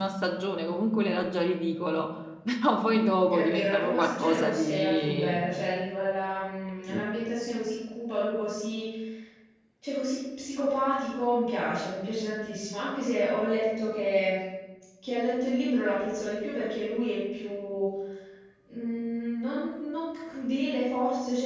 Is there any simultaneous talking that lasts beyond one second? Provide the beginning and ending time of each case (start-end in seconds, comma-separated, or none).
3.3-5.5